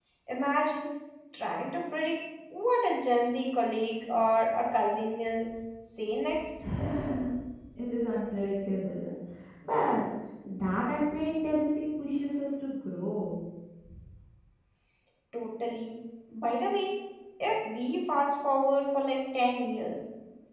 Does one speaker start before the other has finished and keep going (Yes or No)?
No